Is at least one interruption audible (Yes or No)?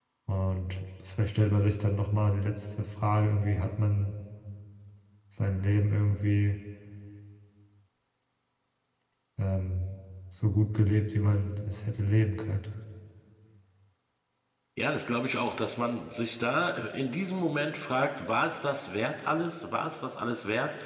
No